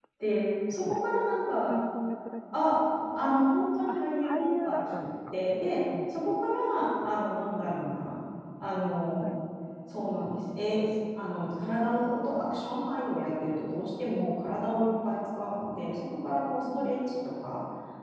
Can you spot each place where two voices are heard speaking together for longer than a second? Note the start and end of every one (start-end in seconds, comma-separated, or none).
3.9-5.3